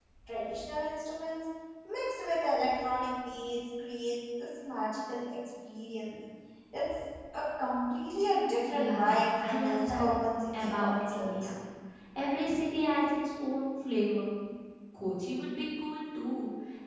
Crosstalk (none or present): present